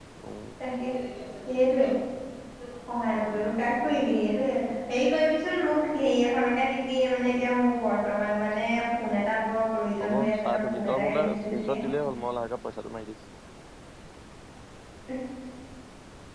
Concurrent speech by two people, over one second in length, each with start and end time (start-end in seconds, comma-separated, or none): 10.0-11.8